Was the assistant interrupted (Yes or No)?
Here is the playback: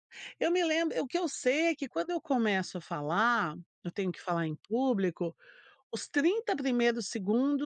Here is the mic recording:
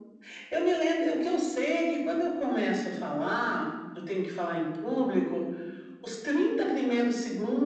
No